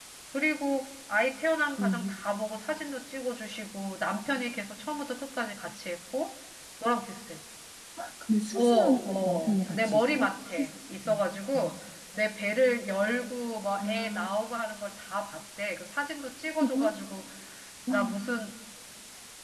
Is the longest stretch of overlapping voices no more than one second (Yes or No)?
No